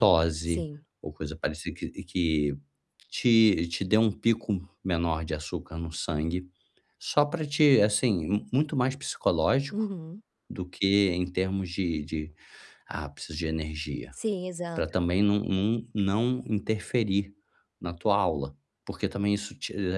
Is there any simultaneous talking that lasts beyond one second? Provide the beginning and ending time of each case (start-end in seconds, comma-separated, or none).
none